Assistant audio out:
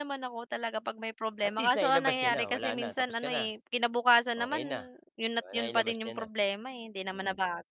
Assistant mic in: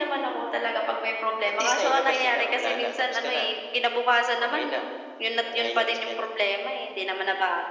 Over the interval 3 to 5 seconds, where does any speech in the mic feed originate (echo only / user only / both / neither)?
echo only